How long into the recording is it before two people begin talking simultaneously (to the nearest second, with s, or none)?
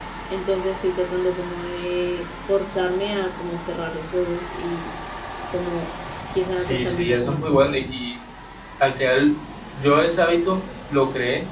7 s